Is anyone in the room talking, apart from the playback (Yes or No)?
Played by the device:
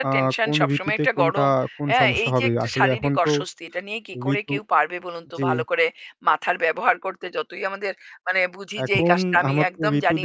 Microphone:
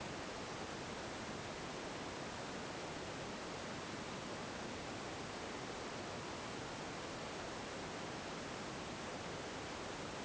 No